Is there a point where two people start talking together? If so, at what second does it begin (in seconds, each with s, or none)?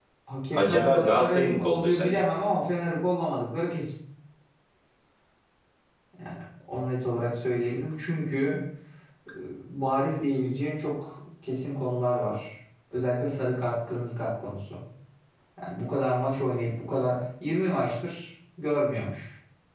0.5 s